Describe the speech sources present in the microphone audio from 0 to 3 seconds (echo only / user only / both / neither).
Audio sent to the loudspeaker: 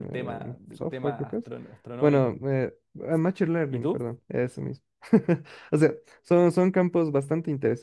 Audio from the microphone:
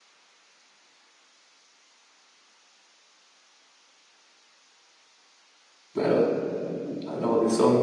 neither